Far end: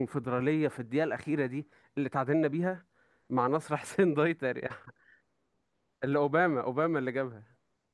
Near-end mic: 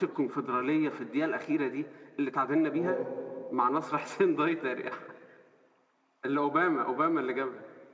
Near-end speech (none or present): present